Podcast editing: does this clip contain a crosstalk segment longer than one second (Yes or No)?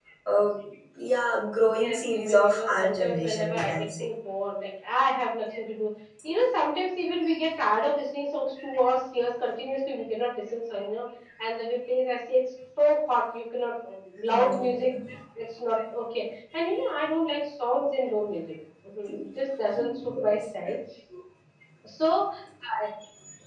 Yes